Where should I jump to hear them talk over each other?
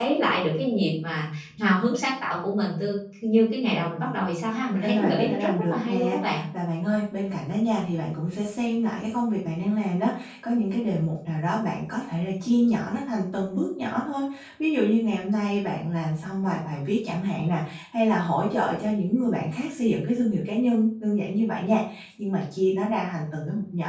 4.7 s

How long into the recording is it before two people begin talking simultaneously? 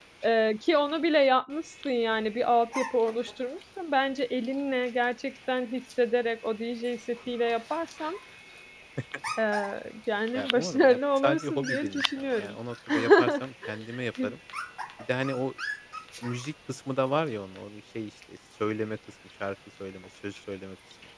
10.3 s

